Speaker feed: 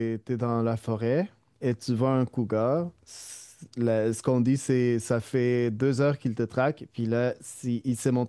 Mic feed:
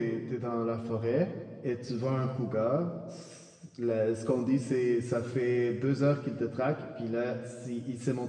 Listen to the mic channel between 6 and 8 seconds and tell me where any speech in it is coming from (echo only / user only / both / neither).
echo only